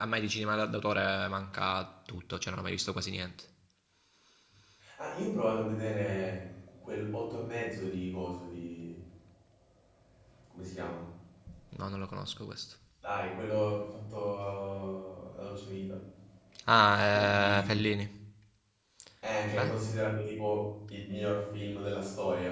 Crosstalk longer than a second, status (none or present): none